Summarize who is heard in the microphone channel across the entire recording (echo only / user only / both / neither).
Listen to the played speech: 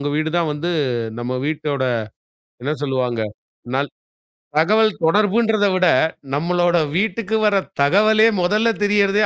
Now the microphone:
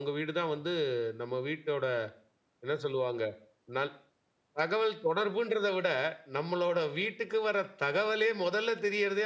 echo only